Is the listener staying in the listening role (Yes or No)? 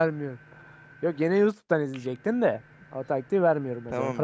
No